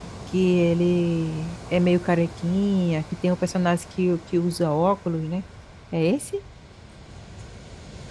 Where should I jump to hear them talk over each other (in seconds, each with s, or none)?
none